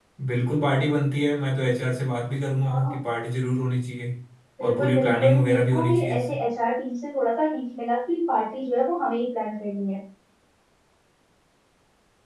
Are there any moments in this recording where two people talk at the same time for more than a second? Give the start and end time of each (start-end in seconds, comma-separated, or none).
4.6-6.3